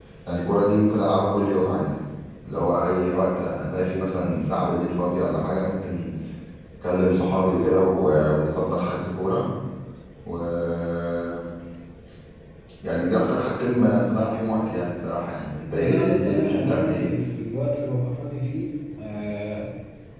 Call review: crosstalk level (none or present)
present